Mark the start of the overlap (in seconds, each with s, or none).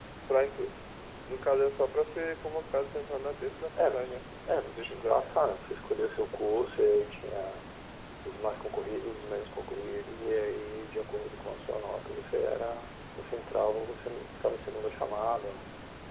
3.8 s